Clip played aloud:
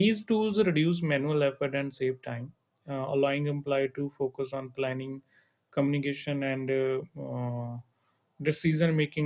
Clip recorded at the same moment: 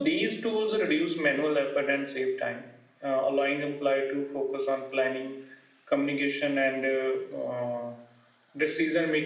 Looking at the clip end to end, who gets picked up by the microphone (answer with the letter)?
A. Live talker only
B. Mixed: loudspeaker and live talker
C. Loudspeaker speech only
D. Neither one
C